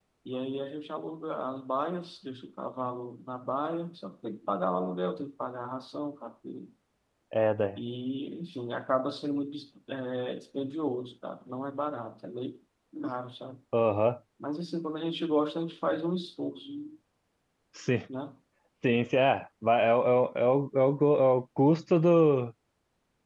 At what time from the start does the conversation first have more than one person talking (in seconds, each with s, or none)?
none